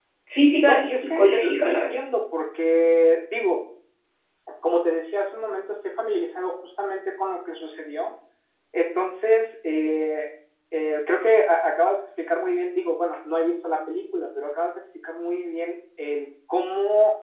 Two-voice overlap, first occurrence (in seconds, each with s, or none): 0.6 s